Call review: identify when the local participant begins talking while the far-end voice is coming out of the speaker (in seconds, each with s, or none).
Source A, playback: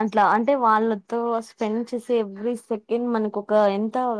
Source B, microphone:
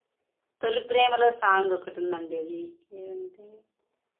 0.6 s